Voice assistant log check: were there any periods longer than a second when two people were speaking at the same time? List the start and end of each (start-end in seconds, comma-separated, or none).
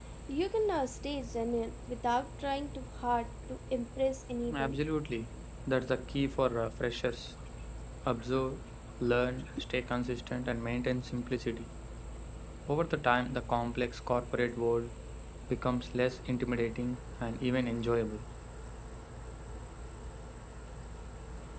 none